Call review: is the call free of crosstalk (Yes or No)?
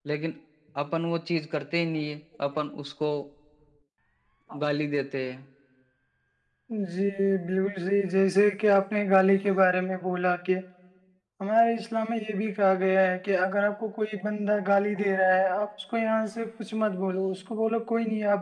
Yes